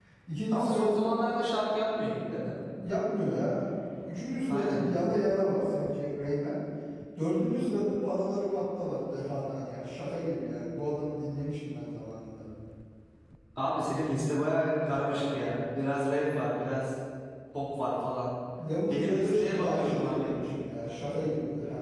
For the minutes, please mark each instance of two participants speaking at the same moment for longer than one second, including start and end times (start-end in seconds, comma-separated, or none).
18.9-20.3